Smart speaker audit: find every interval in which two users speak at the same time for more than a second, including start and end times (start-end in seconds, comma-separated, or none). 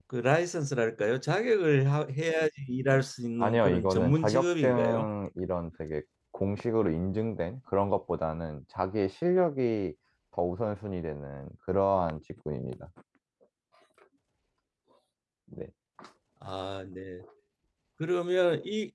3.4-5.1